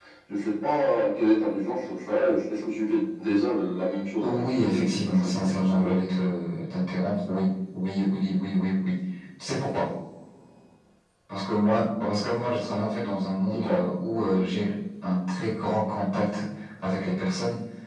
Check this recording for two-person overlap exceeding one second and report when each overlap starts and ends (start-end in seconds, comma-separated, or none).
4.2-6.0